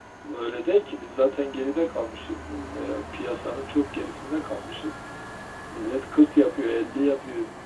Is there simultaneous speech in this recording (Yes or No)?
No